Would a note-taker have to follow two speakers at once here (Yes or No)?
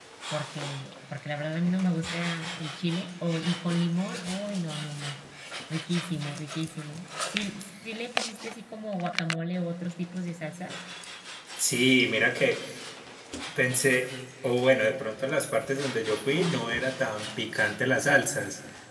No